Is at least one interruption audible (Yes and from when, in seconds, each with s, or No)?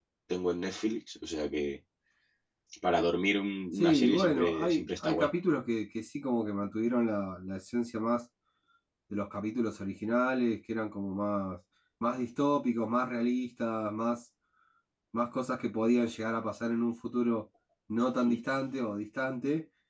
Yes, from 3.7 s